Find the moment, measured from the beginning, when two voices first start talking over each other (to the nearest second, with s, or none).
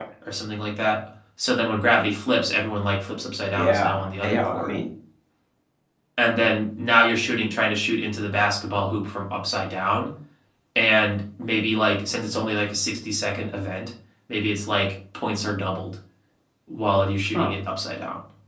4 s